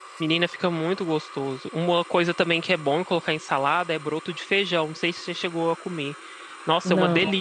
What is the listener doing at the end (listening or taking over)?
listening